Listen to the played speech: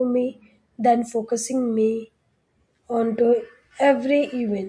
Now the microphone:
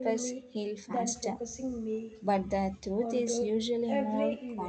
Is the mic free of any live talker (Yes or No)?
No